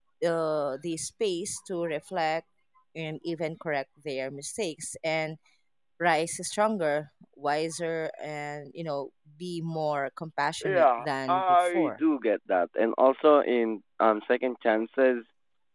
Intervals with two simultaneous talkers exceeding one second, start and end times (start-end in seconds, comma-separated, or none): 10.6-11.9